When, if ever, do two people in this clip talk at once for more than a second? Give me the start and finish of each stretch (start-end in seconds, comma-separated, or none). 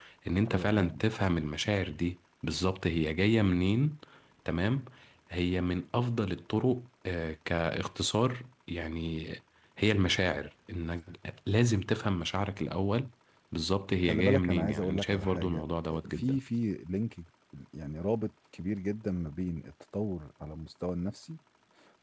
14.1-15.6